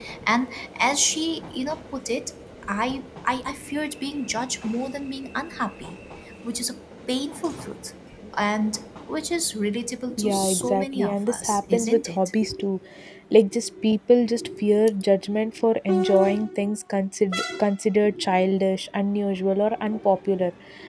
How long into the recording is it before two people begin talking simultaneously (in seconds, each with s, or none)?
10.1 s